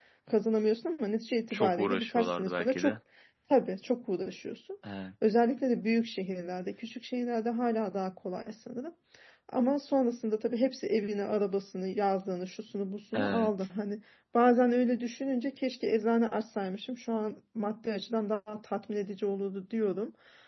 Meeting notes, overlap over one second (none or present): present